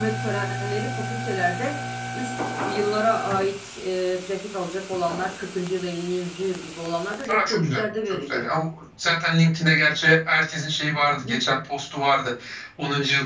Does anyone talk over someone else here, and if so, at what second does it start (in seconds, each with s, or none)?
7.3 s